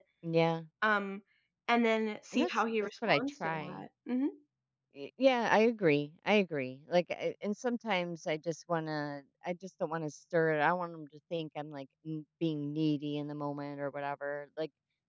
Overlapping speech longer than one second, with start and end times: 2.3-3.8

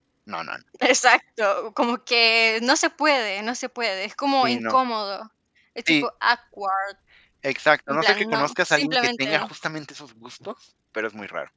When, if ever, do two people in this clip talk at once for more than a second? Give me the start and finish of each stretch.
7.9-9.4

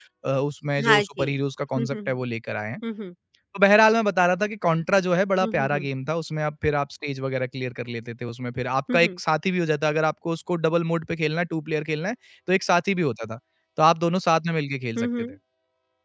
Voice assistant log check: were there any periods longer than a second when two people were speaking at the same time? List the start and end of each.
none

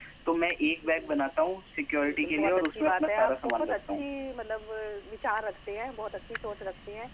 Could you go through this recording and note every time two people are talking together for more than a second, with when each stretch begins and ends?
2.0-4.1

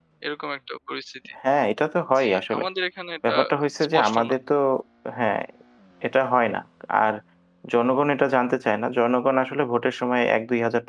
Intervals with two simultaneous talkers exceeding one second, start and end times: none

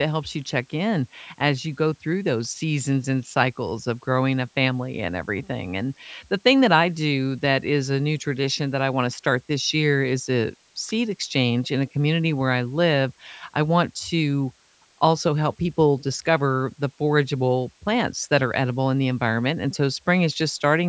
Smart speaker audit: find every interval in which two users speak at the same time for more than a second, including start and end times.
none

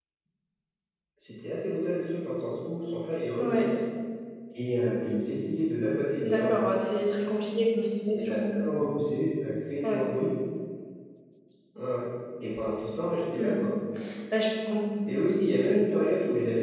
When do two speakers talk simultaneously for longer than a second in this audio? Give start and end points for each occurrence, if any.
none

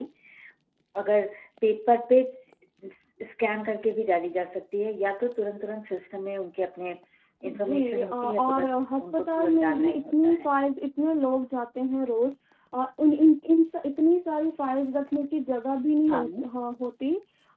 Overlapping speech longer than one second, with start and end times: 7.5-10.5

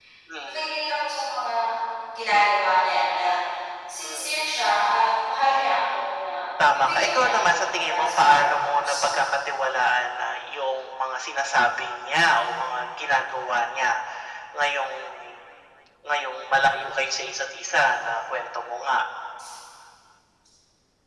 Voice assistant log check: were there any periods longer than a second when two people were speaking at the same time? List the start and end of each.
6.7-9.1

